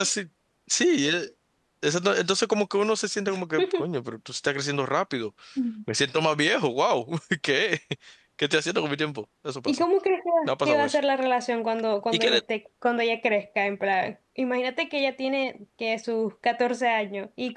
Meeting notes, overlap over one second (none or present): none